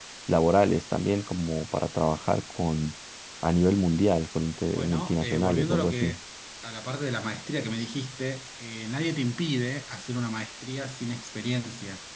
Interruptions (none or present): present